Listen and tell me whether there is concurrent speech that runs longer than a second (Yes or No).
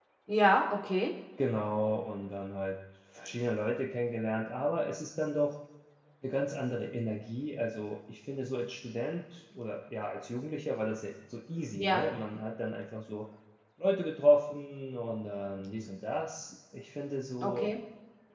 No